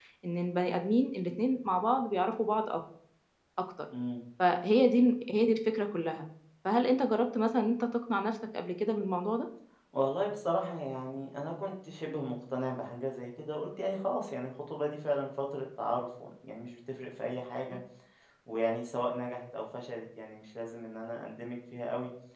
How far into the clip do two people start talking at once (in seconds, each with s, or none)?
none